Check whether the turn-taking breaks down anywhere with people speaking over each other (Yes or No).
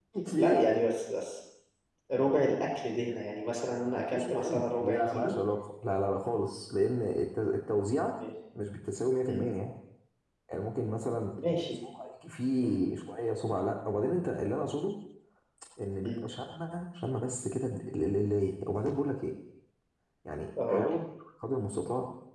Yes